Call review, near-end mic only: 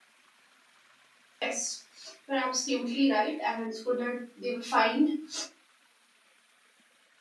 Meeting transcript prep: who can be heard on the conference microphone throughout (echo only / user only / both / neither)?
user only